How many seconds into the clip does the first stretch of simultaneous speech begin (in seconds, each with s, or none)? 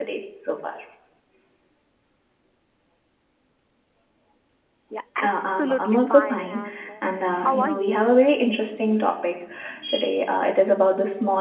5.2 s